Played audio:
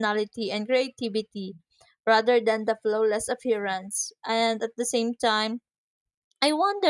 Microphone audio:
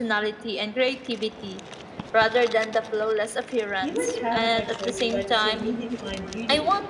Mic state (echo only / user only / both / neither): both